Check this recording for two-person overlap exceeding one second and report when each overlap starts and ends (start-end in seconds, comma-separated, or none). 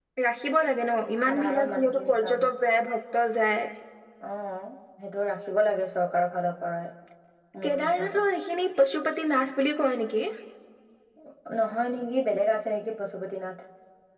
1.2-2.5